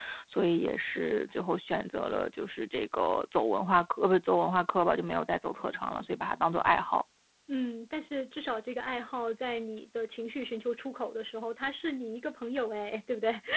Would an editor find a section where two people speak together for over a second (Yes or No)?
No